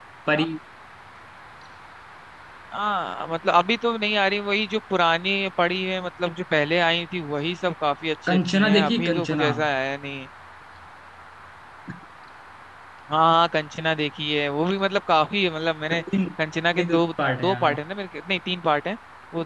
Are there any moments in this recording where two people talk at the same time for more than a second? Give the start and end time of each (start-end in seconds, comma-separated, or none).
8.3-9.5